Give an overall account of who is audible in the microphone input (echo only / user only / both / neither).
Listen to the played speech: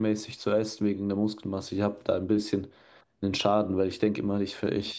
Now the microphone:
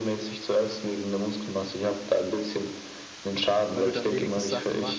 both